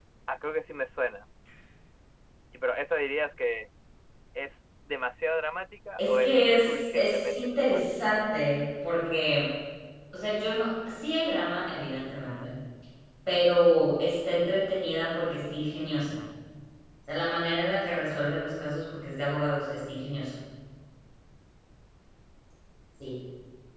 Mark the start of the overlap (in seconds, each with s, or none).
6.0 s